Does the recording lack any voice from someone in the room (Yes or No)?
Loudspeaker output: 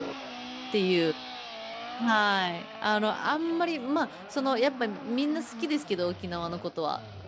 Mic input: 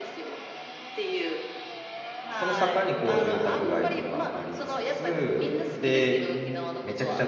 No